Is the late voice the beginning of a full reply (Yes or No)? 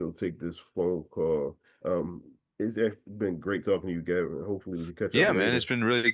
Yes